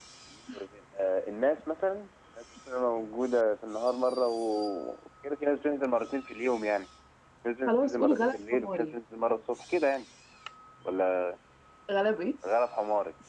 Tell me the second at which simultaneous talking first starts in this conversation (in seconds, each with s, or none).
7.7 s